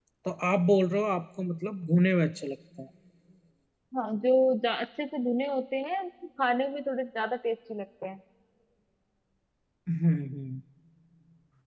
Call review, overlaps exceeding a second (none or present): none